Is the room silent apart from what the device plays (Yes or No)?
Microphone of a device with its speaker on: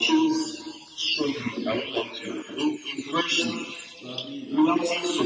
No